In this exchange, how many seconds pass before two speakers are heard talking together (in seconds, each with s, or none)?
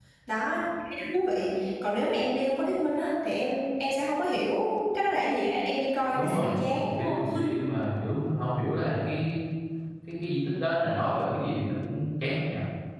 6.1 s